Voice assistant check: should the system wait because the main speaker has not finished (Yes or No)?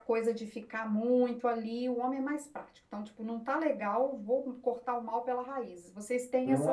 No